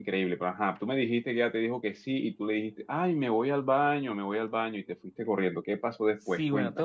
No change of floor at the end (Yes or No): No